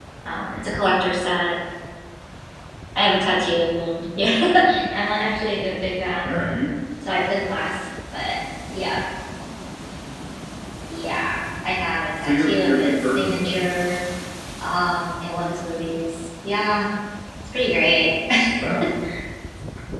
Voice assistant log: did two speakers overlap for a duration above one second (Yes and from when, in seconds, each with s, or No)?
Yes, from 12.2 s